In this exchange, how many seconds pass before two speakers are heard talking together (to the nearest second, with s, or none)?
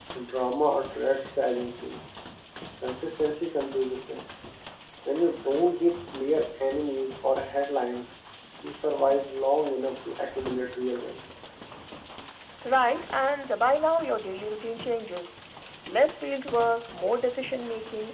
none